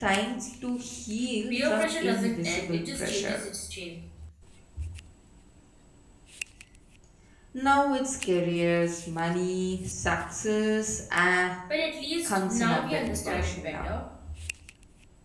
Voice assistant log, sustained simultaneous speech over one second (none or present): present